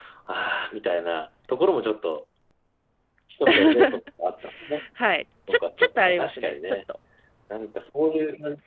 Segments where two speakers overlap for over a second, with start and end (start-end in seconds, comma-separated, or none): 5.5-6.8